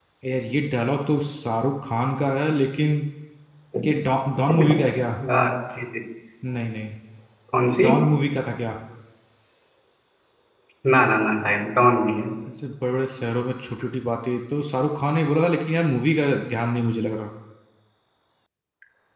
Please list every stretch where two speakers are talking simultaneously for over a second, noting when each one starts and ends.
none

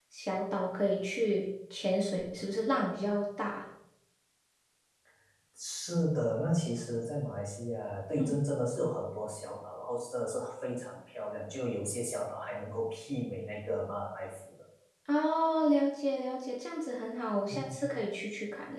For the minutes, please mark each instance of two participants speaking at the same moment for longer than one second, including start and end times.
none

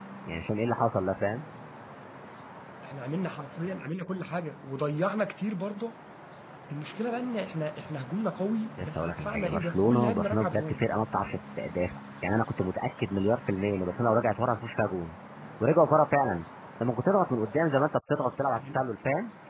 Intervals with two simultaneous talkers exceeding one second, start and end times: 8.8-10.8

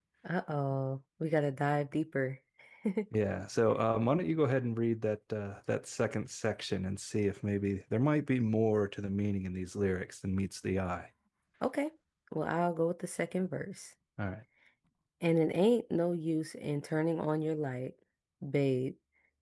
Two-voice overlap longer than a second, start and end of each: none

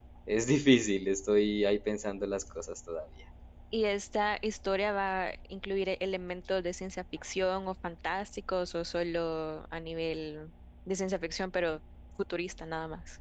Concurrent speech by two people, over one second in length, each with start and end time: none

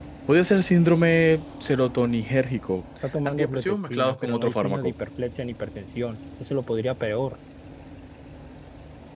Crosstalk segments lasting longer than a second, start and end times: 3.2-4.9

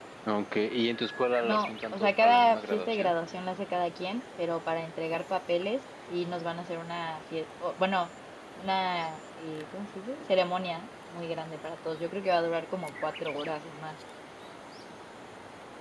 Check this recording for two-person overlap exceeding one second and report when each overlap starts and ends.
1.4-3.1

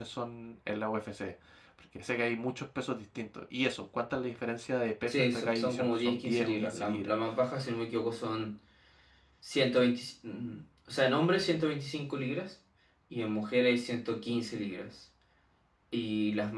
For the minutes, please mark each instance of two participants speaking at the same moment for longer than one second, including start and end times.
5.1-7.1

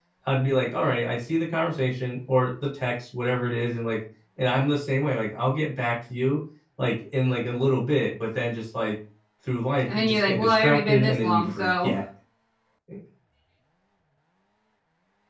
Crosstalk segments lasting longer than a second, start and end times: 9.9-11.9

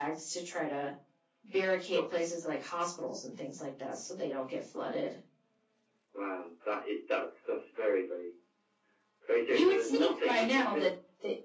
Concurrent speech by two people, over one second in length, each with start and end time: 9.5-10.9

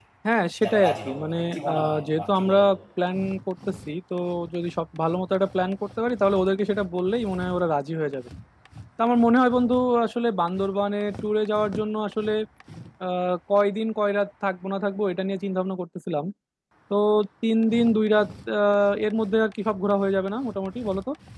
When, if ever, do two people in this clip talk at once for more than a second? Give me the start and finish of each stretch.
0.6-2.6

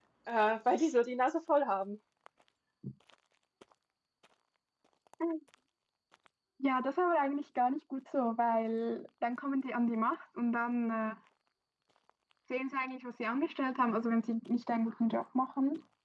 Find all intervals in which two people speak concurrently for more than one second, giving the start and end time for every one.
none

